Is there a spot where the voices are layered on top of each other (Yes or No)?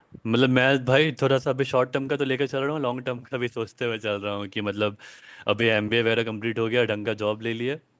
No